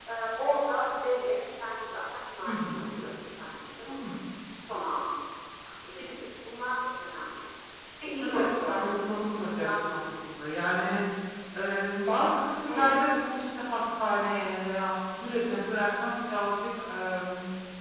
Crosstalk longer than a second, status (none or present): present